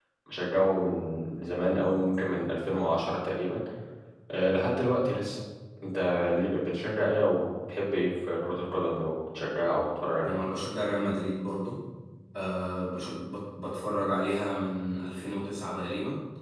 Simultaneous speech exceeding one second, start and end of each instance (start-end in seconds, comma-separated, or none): none